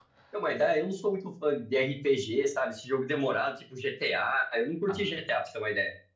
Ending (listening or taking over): listening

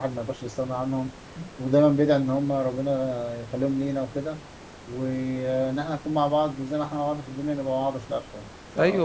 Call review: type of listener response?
taking over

